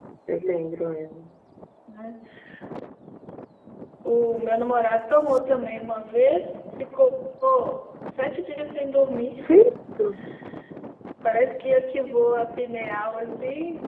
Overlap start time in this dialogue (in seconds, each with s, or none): none